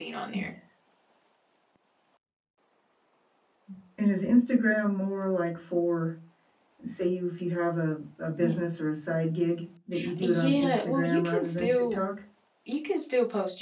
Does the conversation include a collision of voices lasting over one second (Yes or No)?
Yes